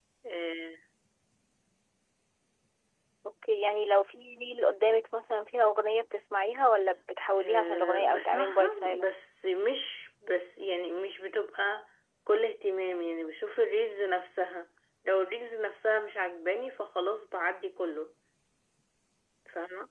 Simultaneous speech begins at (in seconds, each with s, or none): 7.4 s